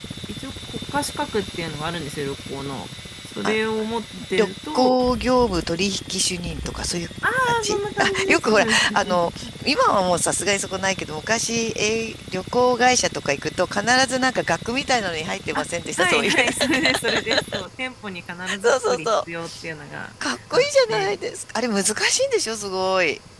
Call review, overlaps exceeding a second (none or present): present